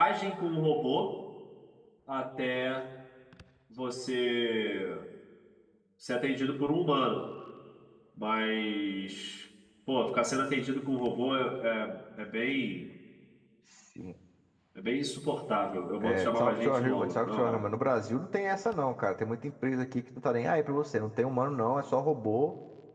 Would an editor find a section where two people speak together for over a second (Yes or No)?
Yes